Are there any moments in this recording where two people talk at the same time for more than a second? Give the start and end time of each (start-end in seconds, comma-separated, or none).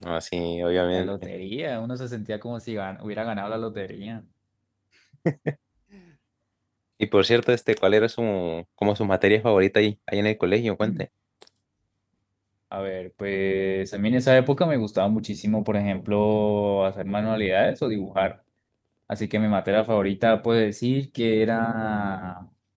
none